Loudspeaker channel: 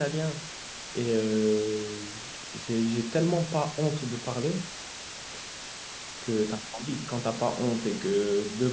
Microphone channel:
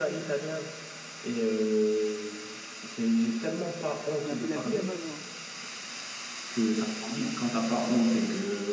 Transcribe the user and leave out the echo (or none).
La fille, la fille n'a pas de genre.